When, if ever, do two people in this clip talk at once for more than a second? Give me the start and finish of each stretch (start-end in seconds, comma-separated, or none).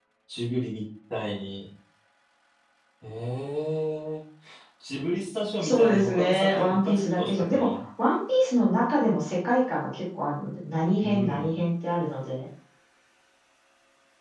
5.6-7.8